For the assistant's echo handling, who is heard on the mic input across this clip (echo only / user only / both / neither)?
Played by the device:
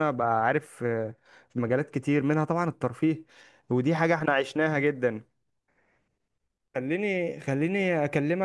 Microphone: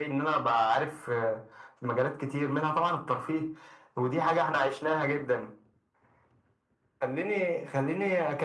echo only